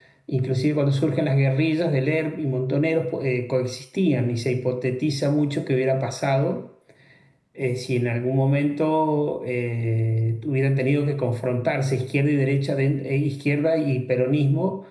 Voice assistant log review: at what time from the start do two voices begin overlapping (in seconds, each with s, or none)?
none